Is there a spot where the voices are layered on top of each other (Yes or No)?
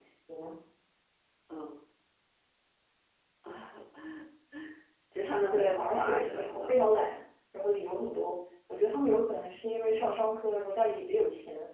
Yes